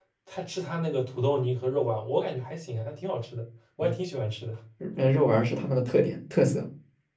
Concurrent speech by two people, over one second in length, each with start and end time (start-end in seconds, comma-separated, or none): none